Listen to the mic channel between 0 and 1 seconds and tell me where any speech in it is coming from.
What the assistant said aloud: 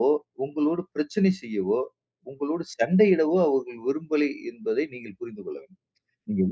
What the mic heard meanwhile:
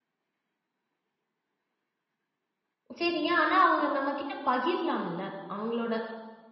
neither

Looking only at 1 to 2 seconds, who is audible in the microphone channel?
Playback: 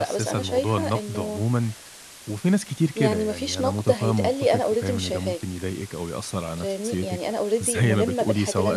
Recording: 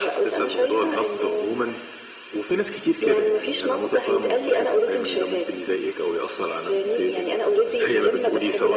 echo only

